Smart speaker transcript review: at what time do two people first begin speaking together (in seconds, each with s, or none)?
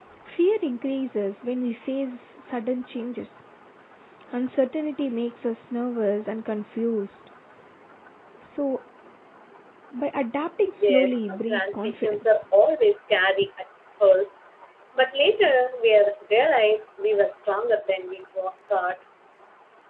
10.8 s